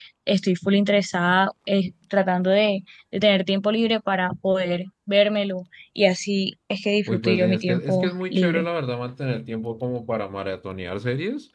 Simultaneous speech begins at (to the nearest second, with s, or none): 7 s